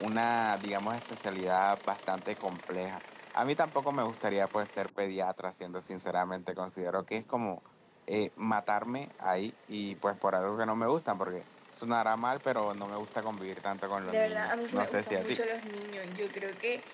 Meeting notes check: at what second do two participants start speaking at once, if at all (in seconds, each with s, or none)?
14.1 s